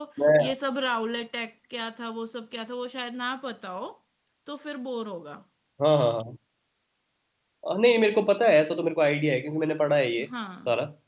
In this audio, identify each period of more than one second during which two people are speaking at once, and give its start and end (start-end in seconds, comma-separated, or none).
none